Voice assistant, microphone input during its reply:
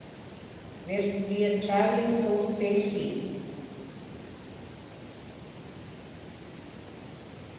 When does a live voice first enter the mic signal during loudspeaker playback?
0.8 s

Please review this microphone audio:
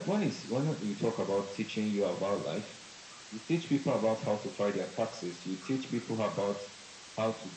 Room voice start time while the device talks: none

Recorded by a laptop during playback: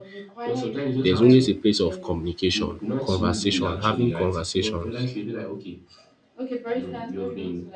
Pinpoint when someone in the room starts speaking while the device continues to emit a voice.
1.0 s

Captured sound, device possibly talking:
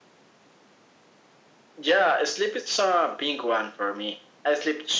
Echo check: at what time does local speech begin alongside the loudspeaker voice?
none

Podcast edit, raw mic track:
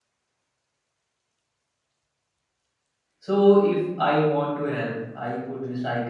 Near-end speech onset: 3.2 s

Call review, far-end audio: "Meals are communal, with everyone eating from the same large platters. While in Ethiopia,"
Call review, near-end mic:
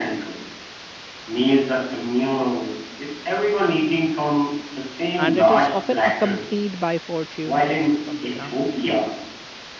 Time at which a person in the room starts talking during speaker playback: 5.2 s

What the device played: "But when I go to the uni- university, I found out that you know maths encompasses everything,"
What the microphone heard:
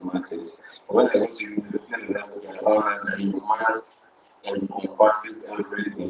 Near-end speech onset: none

